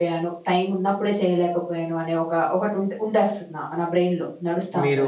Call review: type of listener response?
taking over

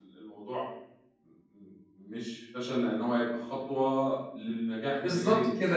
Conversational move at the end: taking over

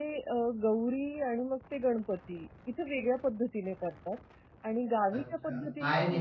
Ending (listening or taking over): taking over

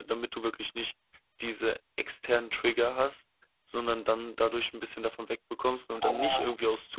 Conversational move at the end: listening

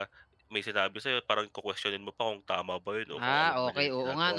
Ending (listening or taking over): taking over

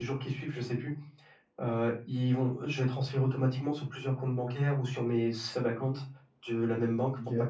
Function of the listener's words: listening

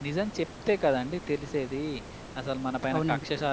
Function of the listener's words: listening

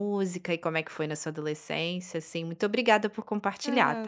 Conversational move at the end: taking over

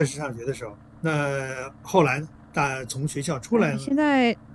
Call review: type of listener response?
taking over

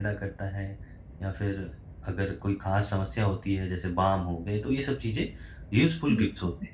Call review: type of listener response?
listening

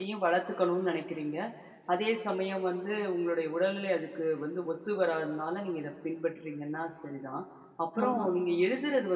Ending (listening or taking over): listening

